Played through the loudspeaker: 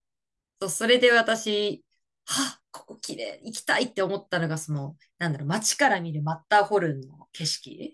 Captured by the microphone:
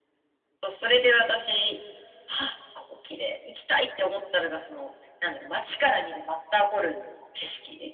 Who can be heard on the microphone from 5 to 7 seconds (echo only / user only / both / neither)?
echo only